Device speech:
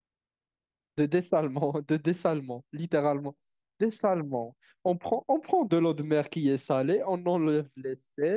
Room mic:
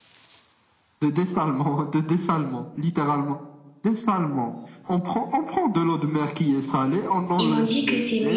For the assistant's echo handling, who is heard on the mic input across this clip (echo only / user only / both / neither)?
both